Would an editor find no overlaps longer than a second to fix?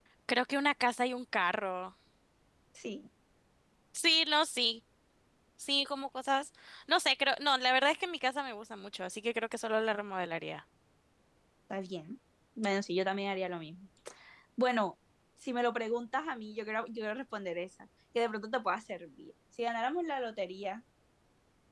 Yes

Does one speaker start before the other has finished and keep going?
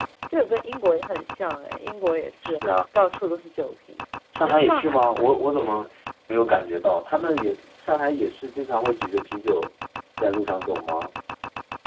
Yes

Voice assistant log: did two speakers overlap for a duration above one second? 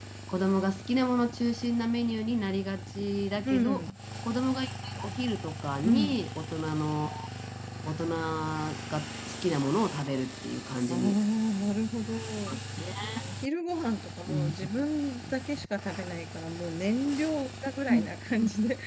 No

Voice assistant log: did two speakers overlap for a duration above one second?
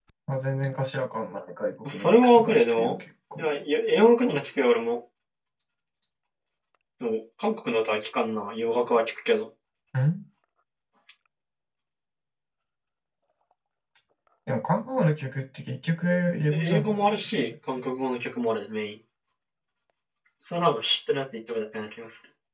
Yes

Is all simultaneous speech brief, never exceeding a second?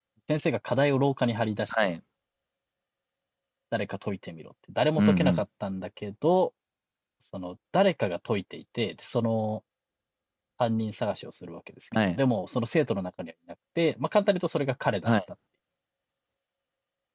Yes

